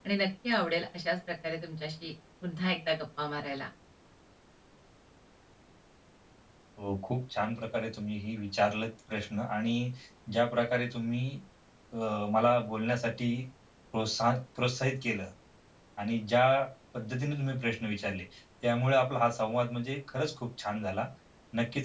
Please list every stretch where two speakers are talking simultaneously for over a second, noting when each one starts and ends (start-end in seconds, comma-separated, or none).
none